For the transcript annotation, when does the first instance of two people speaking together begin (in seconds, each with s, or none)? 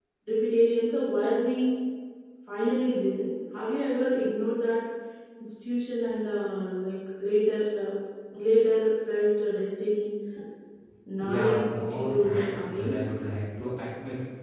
11.2 s